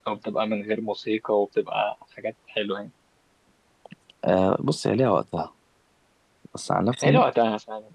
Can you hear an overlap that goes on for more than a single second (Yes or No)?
No